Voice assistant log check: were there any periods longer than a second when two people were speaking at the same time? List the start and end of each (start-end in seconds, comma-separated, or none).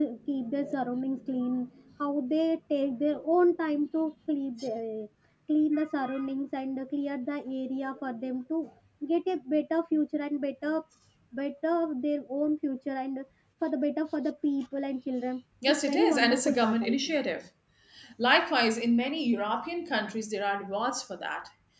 15.7-17.2